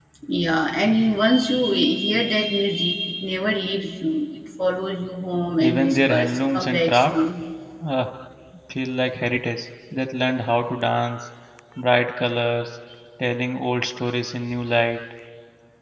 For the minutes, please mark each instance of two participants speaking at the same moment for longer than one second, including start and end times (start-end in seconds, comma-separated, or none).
5.6-7.2